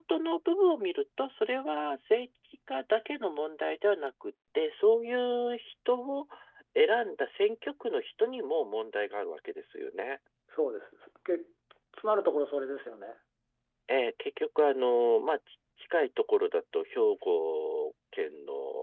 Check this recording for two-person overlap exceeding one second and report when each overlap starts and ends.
none

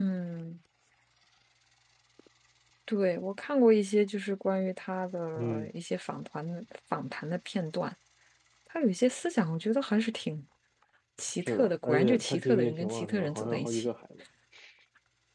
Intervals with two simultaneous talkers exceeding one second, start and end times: 11.4-13.9

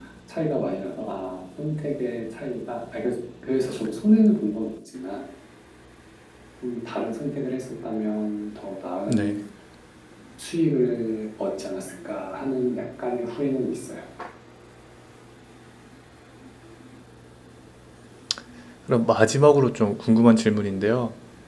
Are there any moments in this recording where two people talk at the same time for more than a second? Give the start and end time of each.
none

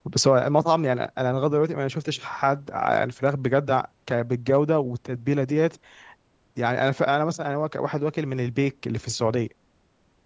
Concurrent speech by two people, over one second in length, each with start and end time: none

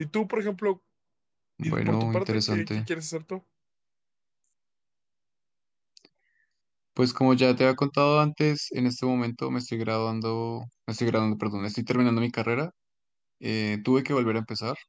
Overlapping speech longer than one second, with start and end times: 1.6-2.9

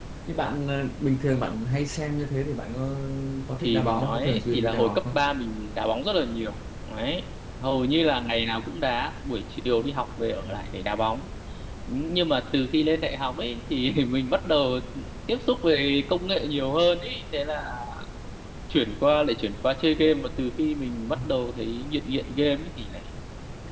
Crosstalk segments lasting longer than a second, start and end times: 3.6-5.2

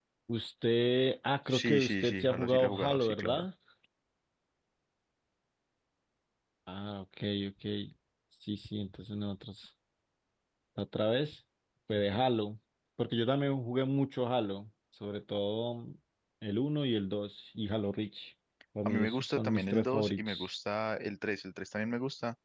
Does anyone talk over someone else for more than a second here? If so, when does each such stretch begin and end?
1.6-3.5, 18.9-20.5

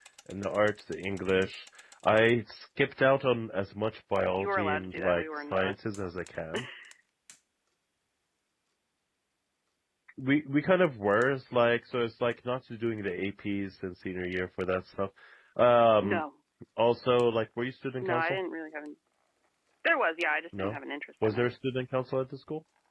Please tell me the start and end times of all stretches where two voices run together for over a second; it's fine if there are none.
4.4-5.8

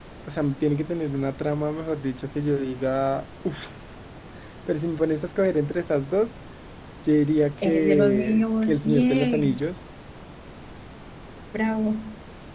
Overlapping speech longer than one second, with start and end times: 7.6-9.6

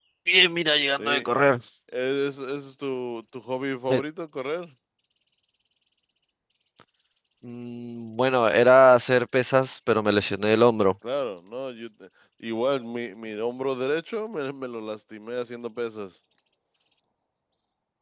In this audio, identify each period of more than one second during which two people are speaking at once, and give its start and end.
none

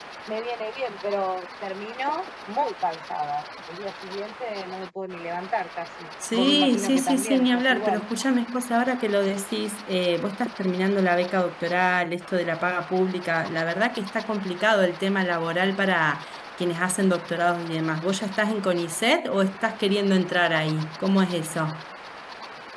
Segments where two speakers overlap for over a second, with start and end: 6.3-8.0

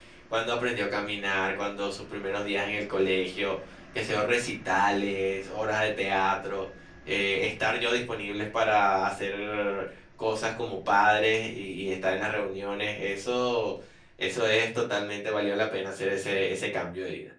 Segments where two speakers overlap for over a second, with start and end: none

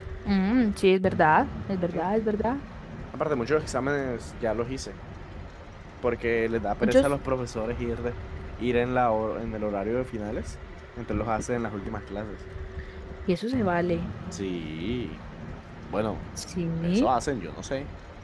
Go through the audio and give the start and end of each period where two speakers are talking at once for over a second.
none

